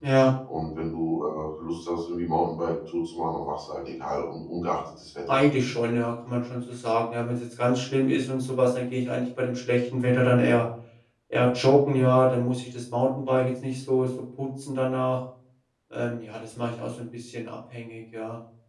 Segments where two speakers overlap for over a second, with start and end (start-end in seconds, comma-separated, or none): none